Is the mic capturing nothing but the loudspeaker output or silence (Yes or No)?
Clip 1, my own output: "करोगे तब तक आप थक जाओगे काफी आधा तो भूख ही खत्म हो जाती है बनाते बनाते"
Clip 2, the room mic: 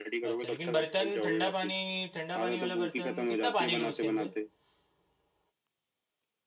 No